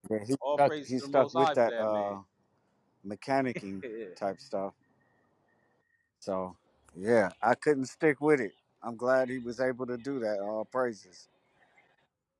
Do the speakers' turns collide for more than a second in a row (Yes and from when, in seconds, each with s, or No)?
Yes, from 0.6 s